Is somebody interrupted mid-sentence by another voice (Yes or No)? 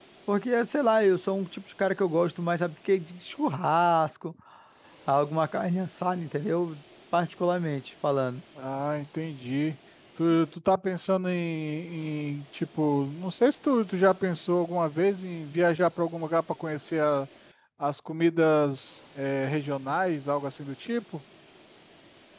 No